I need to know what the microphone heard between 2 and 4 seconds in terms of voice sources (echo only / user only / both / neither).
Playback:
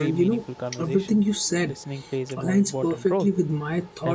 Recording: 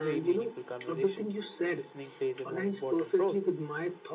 echo only